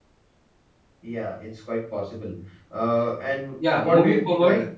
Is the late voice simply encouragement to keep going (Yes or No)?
No